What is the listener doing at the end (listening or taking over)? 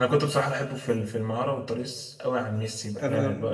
listening